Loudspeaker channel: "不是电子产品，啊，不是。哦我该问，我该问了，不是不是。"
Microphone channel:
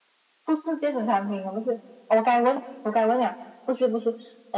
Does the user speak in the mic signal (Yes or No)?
No